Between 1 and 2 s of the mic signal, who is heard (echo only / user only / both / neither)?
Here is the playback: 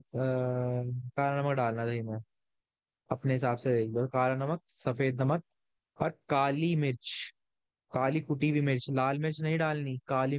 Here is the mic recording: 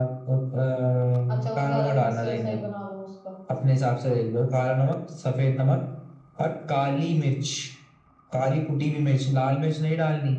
both